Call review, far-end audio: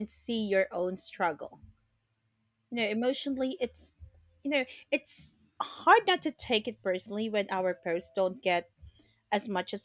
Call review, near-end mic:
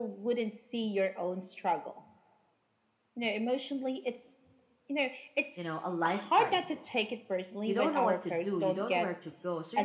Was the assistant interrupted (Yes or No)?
Yes